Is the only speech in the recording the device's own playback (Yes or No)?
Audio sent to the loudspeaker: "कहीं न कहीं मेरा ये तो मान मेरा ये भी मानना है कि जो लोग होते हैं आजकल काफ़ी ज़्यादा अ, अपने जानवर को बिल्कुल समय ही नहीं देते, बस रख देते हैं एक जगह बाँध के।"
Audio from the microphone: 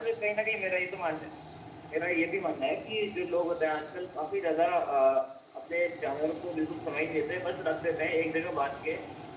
Yes